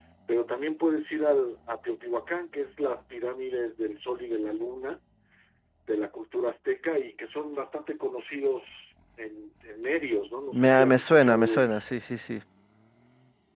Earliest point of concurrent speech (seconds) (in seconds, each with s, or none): 10.5 s